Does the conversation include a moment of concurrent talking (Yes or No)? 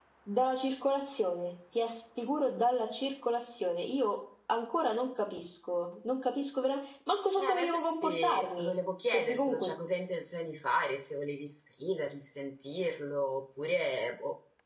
Yes